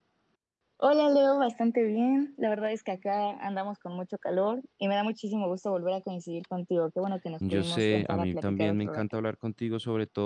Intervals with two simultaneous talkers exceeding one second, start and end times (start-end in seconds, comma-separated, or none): 7.5-9.0